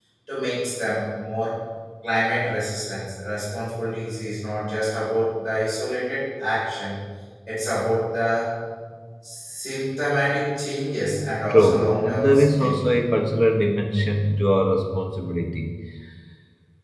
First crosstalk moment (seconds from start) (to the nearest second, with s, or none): 11 s